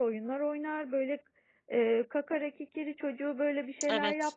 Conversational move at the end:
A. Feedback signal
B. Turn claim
A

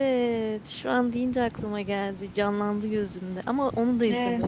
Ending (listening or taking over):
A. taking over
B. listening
A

